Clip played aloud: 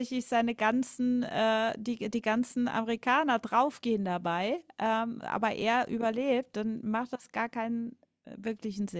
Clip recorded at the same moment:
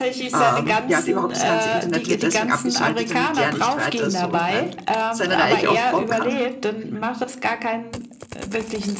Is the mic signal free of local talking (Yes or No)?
No